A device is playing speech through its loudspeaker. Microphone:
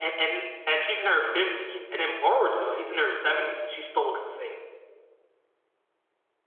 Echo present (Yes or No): Yes